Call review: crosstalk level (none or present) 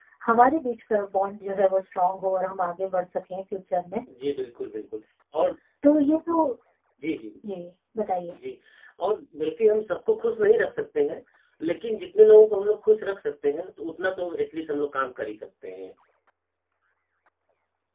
none